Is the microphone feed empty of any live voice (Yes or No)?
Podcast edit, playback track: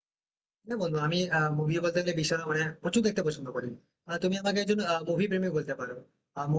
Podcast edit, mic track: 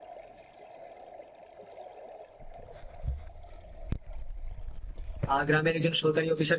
No